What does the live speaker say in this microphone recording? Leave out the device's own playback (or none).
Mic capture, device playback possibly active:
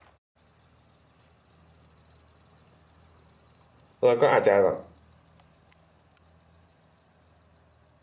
เราก็อาจจะแบบ